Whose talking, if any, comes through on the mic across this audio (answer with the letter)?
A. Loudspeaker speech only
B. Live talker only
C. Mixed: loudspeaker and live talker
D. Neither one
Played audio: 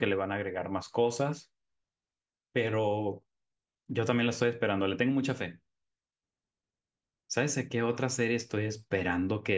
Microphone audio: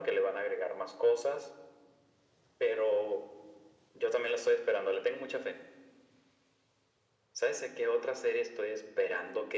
A